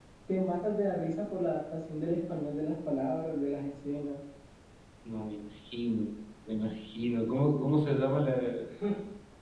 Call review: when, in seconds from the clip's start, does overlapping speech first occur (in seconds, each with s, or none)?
none